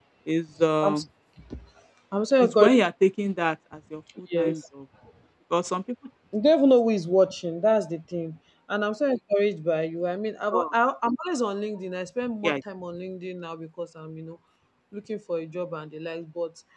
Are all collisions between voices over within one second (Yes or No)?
Yes